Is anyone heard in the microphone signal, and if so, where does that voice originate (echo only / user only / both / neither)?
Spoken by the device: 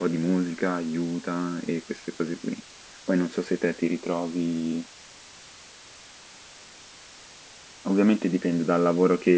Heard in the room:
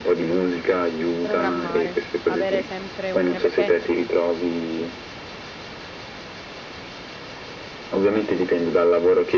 both